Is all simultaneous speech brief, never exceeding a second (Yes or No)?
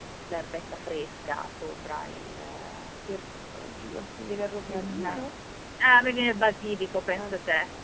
Yes